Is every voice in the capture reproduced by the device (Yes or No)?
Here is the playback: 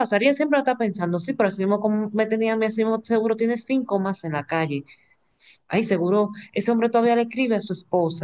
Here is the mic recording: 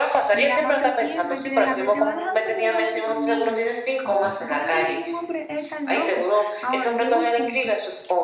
No